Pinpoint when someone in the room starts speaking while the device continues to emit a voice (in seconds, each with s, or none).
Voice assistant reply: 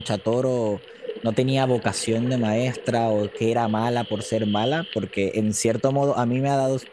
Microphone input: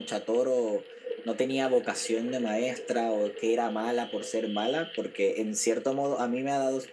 none